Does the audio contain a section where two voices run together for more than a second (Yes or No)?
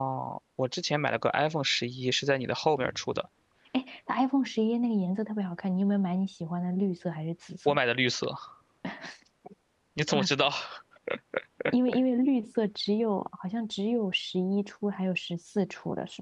No